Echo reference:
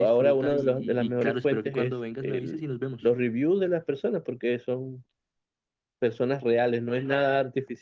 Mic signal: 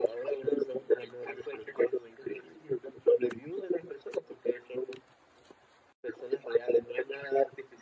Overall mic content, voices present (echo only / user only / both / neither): echo only